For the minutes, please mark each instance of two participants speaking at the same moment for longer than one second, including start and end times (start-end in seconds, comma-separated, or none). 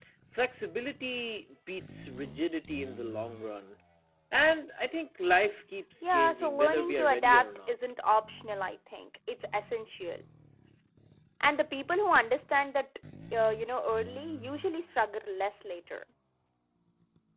6.0-7.7